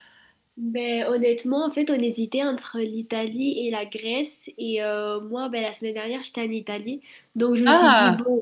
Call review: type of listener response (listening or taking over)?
listening